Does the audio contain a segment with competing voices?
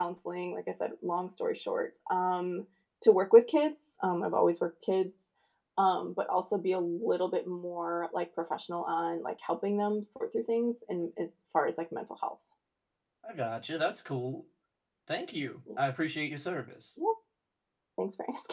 No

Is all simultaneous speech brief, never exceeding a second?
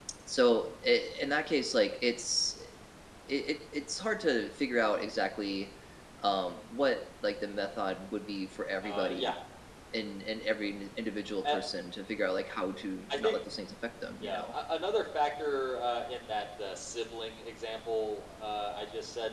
Yes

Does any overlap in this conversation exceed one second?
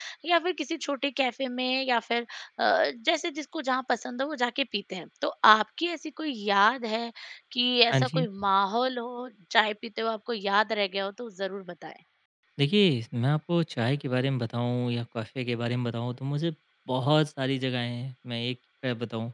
No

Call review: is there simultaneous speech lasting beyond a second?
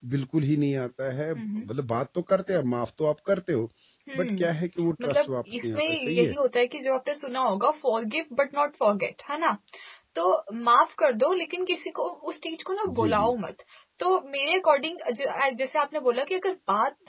Yes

